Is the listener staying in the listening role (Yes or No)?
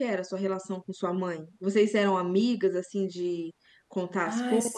No